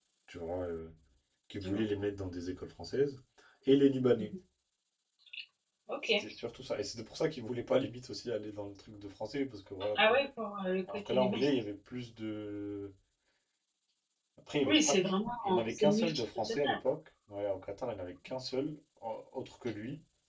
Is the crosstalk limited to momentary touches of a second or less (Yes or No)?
No